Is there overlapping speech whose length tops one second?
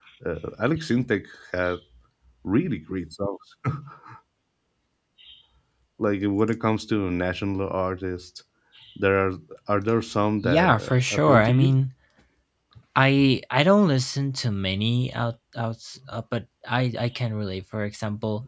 Yes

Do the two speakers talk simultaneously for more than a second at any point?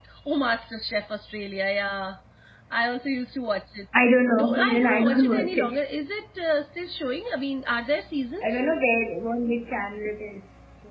Yes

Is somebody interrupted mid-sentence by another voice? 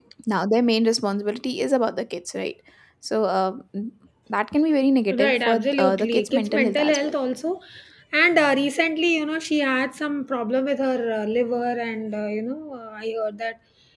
Yes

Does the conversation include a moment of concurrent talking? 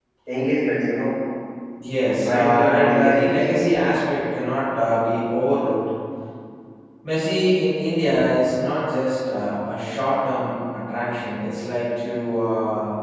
Yes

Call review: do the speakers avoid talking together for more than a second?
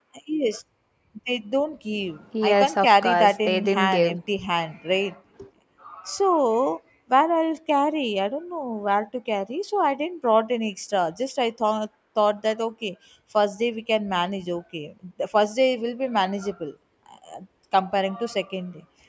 No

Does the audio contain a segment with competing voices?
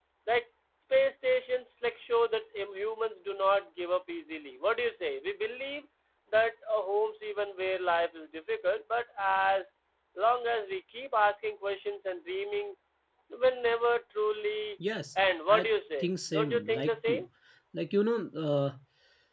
Yes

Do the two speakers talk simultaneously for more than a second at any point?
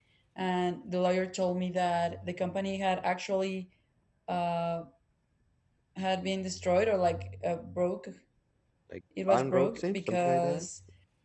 Yes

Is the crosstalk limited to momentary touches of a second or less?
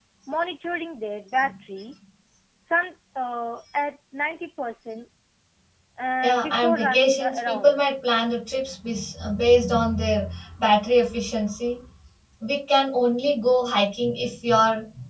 No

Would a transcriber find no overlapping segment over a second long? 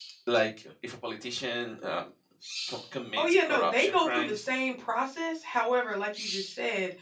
No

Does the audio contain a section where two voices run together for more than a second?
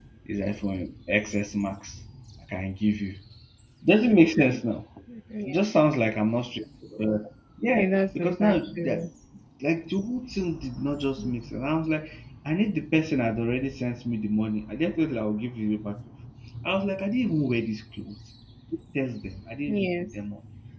Yes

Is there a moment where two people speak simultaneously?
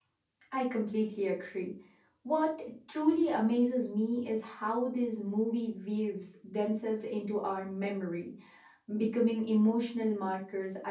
No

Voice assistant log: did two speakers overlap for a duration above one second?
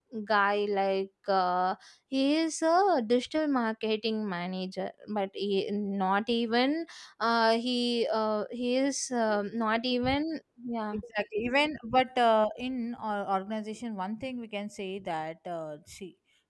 No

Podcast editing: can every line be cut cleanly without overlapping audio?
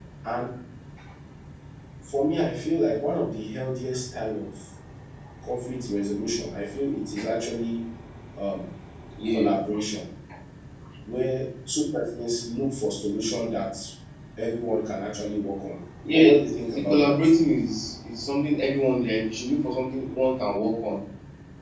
No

